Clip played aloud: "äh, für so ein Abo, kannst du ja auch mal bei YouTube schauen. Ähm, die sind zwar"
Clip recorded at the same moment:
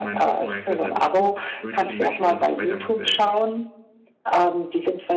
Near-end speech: present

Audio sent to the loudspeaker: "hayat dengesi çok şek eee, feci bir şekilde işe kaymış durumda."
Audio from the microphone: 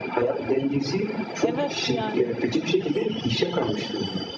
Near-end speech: present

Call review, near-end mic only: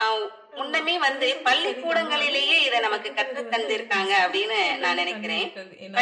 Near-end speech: present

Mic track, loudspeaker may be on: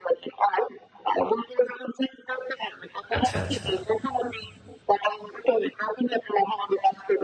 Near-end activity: present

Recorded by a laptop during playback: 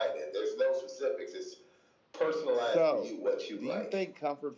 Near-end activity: present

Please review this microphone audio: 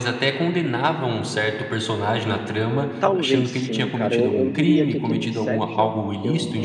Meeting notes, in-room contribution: present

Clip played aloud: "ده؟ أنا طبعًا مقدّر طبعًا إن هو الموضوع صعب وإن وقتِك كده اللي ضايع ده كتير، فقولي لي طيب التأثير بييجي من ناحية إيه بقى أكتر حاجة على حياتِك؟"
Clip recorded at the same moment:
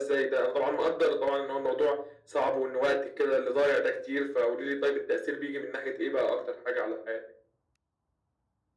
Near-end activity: none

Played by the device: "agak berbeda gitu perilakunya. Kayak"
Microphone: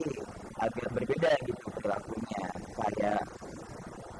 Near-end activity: none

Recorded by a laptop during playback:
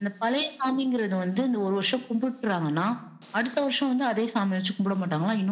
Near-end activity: none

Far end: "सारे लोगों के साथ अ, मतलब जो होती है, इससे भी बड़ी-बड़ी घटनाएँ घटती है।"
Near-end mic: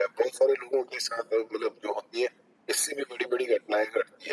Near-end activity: none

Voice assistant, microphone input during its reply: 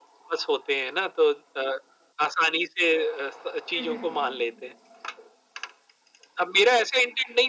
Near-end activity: present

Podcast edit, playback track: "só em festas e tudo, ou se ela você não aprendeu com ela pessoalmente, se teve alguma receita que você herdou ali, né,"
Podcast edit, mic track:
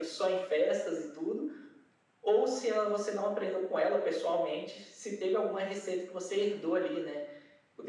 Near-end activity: none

